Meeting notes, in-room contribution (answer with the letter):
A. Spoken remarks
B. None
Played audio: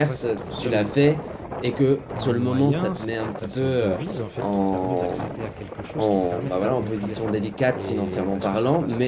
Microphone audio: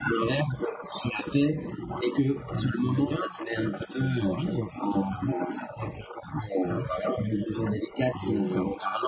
B